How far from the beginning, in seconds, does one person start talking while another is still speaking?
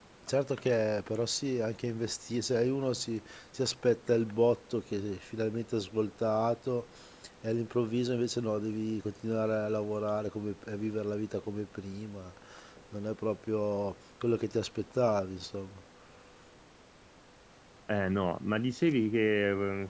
none

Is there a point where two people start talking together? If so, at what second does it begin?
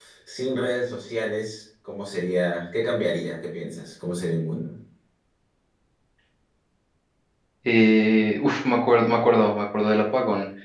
none

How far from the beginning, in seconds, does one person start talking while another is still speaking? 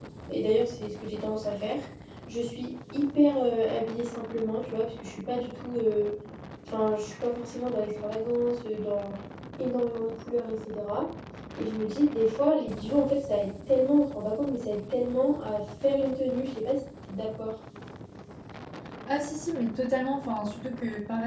none

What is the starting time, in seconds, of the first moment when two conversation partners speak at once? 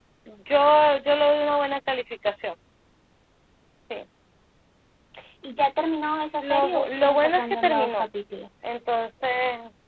6.4 s

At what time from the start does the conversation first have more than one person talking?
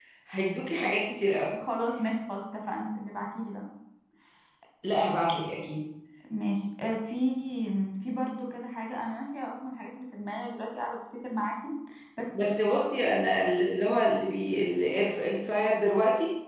none

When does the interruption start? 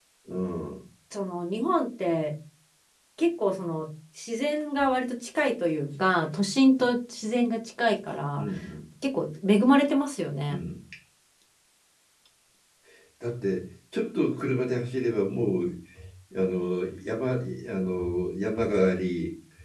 none

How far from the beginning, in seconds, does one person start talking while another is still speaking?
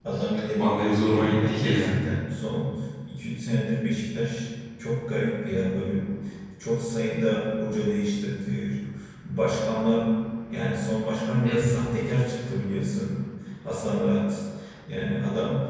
0.6 s

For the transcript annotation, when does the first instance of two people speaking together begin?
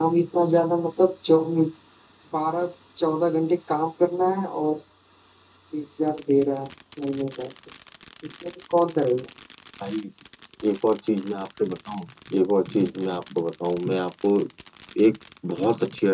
none

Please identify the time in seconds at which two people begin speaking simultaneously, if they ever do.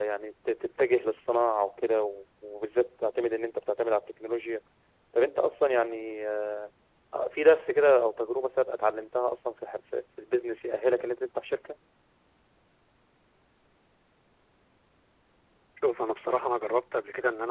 none

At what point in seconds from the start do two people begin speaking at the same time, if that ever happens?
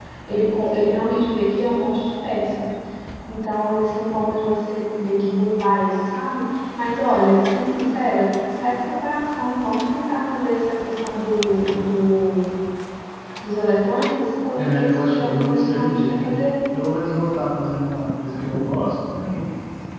14.6 s

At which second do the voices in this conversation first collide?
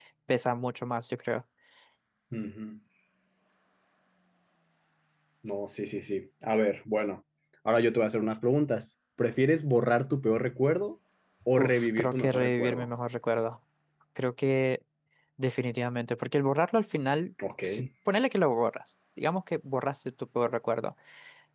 11.6 s

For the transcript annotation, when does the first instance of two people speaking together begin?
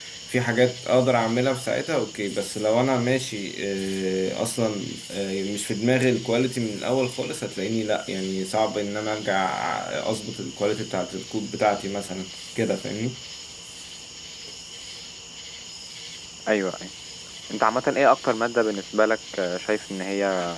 none

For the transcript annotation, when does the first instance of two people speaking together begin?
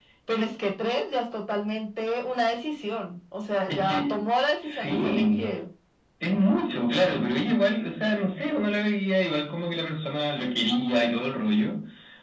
3.7 s

